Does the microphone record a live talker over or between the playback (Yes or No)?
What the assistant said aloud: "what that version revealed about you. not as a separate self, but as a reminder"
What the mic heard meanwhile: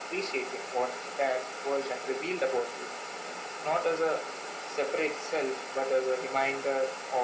No